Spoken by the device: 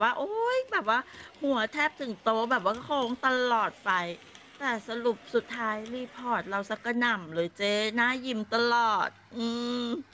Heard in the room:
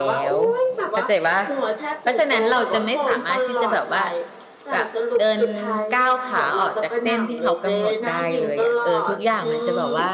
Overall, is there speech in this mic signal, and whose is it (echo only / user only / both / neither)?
both